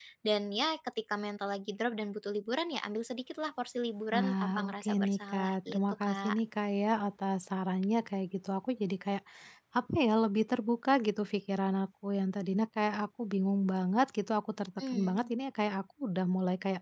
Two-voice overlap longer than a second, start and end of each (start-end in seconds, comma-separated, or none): 4.1-6.4